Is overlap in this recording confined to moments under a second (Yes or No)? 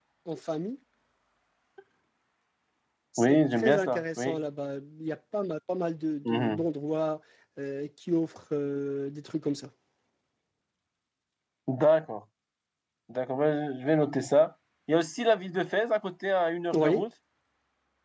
No